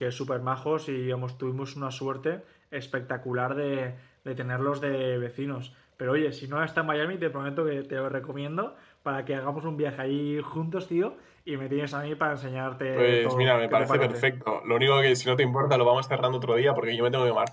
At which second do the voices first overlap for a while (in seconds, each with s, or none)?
12.9 s